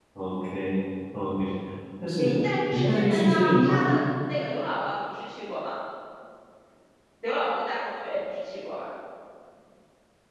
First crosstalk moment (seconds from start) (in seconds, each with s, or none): 2.2 s